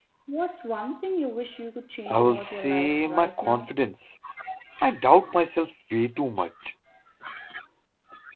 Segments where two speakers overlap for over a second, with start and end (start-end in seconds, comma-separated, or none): 2.1-3.7